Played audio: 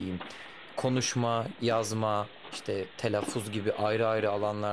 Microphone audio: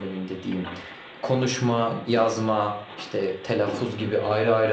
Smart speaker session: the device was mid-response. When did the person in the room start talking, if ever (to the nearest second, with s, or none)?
none